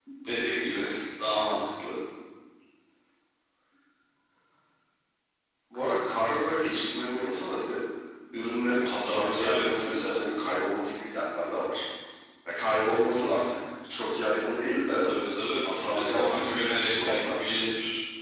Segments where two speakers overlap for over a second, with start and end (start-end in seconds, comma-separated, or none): 9.0-10.2, 15.7-17.6